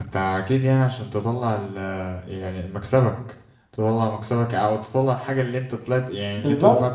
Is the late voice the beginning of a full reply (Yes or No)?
Yes